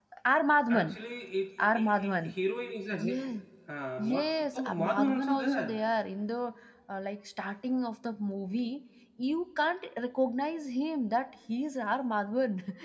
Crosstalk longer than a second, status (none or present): present